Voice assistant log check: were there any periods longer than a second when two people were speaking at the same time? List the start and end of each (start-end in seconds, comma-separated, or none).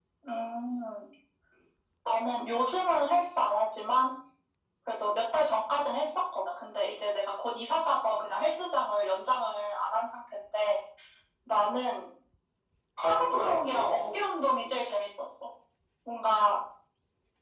13.0-14.8